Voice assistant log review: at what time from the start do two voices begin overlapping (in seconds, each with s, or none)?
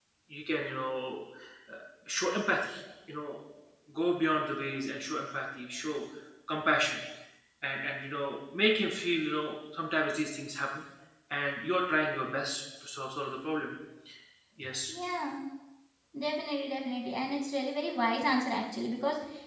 none